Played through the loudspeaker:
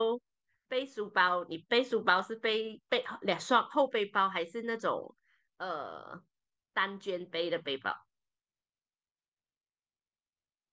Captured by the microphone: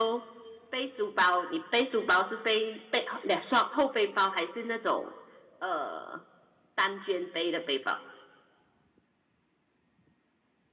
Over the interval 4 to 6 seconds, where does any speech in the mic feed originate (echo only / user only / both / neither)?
echo only